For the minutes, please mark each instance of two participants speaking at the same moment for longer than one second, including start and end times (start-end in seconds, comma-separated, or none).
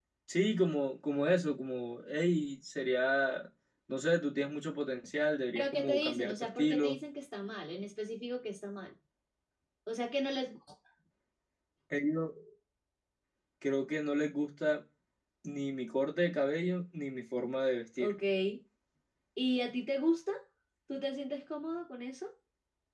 5.5-7.0